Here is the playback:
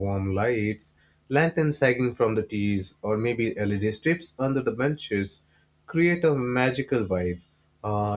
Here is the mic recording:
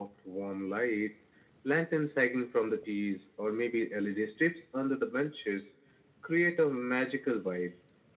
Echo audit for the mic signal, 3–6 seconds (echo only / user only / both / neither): echo only